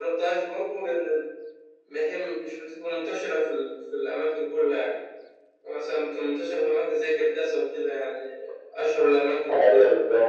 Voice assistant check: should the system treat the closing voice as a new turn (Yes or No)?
Yes